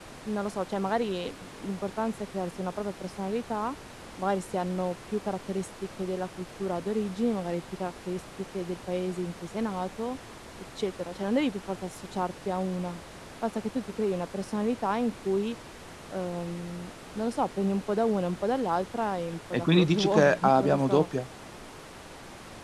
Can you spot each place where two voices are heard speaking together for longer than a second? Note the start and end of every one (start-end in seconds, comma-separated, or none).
19.5-21.1